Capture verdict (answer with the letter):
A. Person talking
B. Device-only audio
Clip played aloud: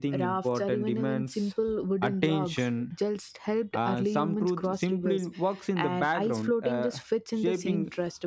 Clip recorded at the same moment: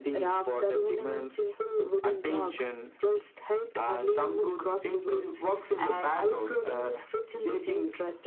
B